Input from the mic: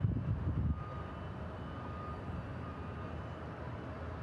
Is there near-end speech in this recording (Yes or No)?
No